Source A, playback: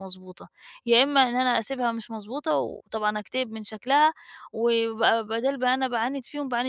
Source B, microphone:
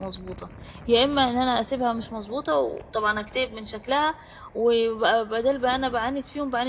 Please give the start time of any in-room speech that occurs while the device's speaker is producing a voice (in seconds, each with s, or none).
none